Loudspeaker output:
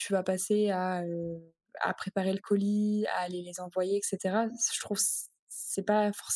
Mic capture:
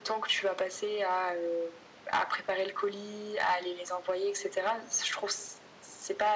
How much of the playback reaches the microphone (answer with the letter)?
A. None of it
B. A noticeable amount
B